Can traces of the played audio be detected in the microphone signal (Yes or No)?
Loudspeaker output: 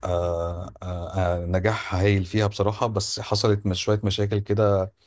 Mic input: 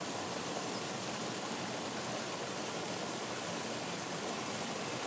No